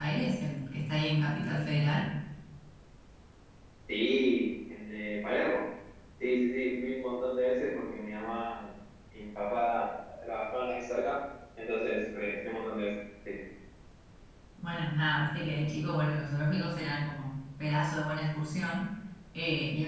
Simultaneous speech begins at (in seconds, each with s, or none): none